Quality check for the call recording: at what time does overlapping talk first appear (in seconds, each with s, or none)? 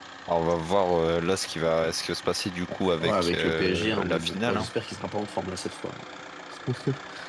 3.0 s